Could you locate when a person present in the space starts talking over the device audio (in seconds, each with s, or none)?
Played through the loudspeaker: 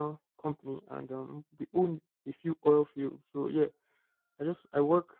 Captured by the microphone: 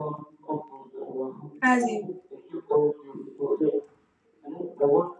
1.6 s